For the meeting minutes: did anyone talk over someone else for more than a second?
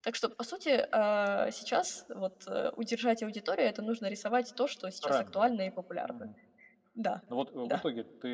No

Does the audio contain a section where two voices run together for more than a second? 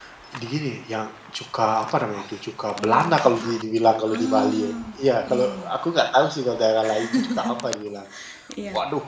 Yes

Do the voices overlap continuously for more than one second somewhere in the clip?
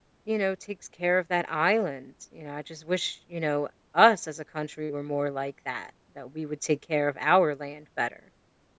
No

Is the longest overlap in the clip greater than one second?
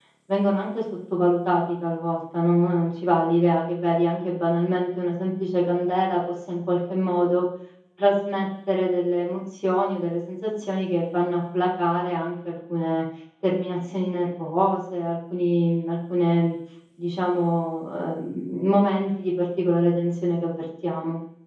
No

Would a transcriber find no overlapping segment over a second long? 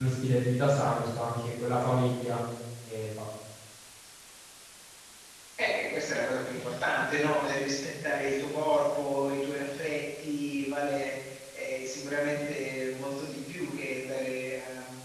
Yes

